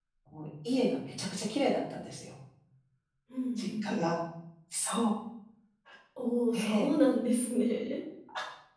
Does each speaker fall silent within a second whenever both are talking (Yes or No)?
Yes